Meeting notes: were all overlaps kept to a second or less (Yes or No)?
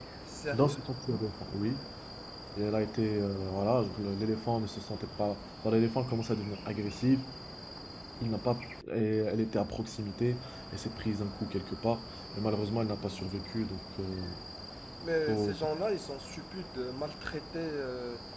Yes